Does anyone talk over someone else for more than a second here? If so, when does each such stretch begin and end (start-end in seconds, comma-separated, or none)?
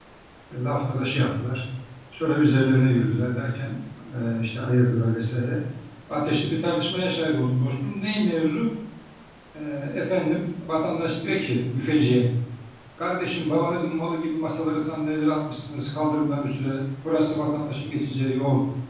none